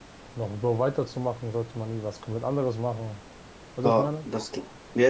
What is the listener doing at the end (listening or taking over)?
taking over